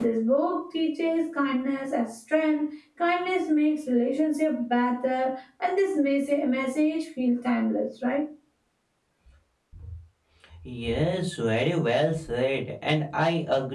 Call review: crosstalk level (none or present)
none